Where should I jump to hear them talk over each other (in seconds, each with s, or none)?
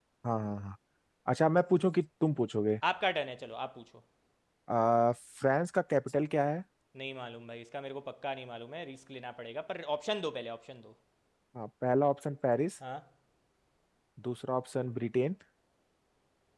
none